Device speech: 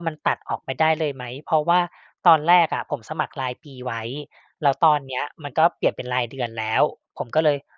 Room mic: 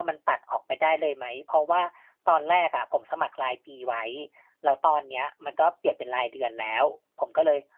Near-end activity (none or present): none